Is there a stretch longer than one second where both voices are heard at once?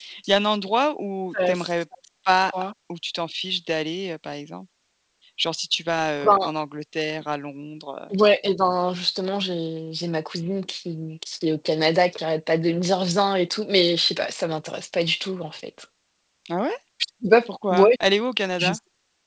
No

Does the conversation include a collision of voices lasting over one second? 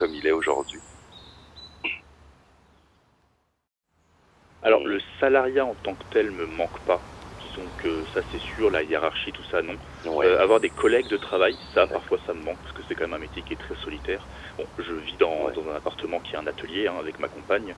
No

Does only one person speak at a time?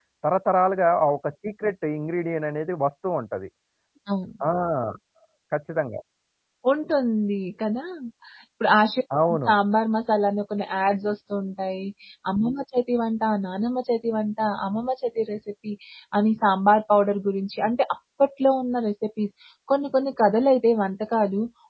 Yes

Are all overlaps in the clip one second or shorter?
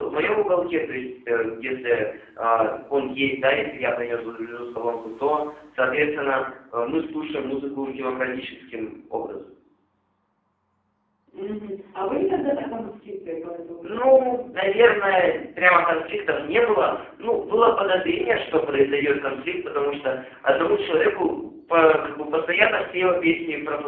Yes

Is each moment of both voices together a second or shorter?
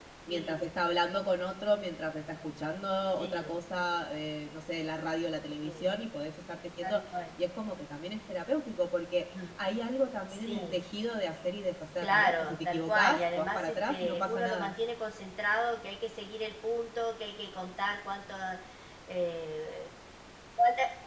No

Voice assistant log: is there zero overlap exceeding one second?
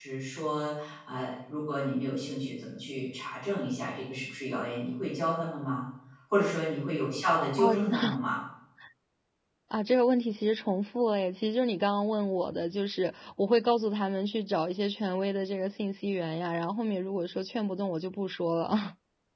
Yes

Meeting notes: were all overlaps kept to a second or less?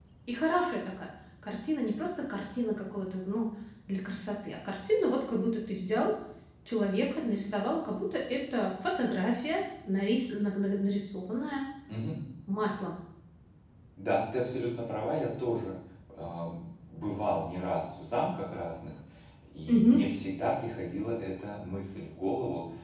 Yes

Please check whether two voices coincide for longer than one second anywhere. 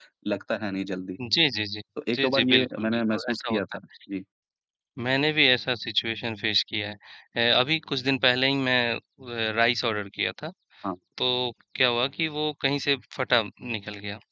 Yes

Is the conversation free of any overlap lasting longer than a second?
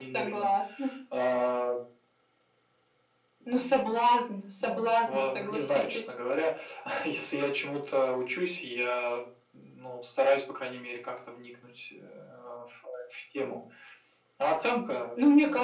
No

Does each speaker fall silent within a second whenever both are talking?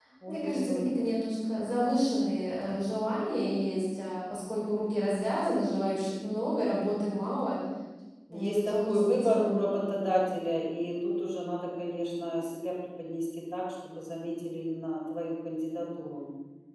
No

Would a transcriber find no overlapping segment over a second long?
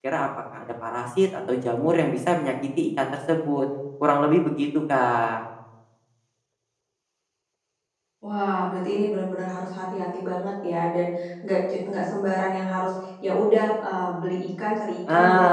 Yes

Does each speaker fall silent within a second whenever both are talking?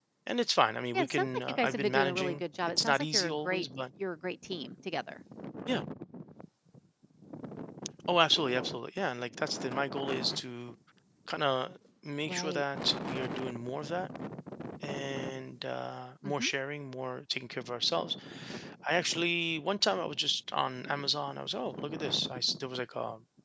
No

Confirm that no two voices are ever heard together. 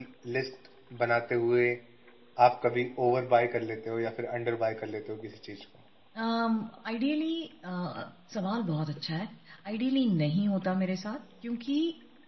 Yes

